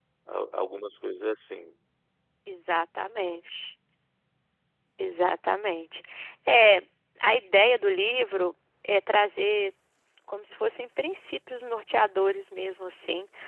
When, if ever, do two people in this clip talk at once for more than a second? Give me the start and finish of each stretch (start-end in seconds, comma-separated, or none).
none